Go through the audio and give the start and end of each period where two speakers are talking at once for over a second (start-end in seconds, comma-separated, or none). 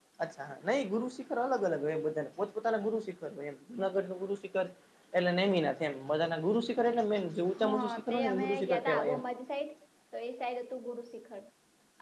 7.8-9.2